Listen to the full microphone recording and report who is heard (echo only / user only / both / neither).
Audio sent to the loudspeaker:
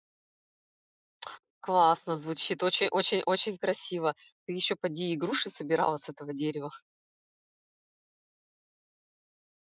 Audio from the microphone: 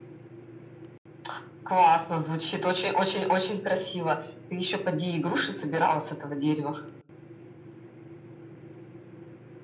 echo only